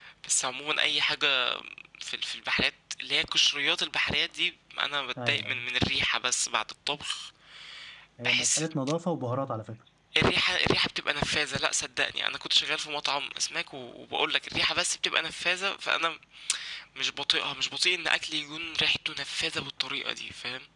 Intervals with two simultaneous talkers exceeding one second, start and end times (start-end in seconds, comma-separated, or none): none